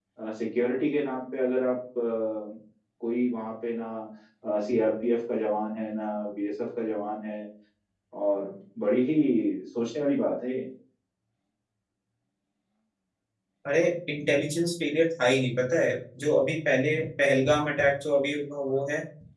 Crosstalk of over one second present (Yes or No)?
No